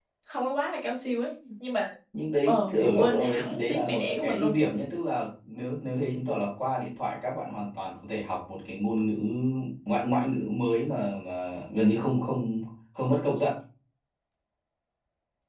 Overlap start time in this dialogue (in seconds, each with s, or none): 2.4 s